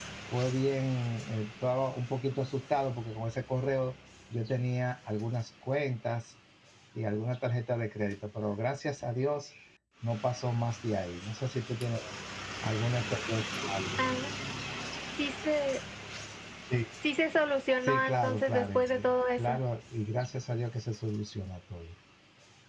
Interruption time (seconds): 17.8 s

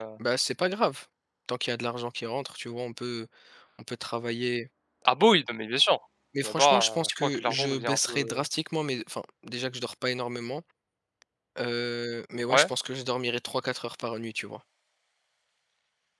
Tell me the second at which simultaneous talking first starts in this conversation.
6.4 s

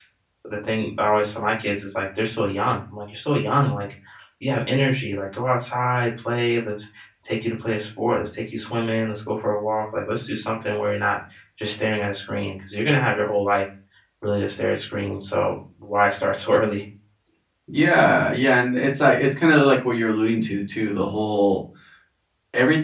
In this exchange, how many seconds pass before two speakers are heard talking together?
none

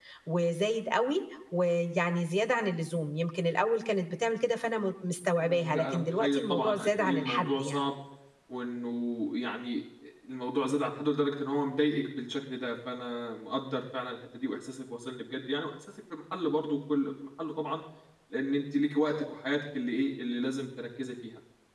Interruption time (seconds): 5.4 s

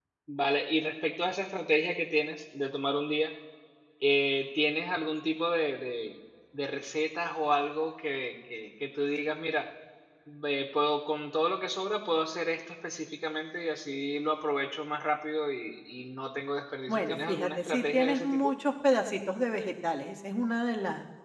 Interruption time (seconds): 16.9 s

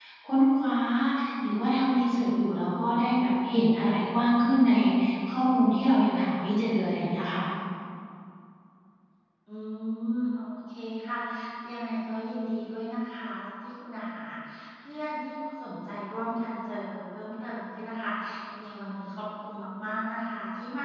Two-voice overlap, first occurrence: none

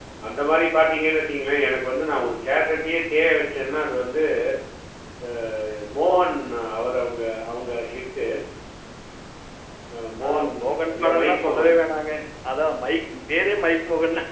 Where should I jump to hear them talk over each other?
10.2 s

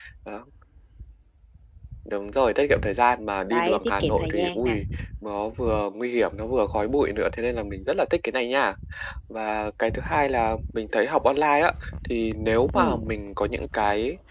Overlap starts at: 3.5 s

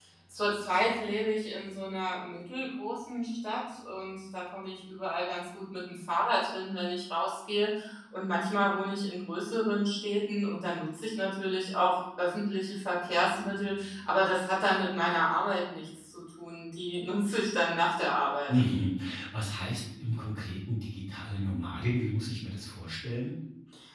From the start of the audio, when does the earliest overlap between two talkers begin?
none

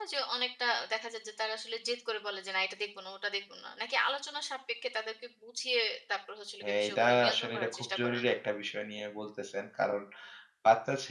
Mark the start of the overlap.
6.6 s

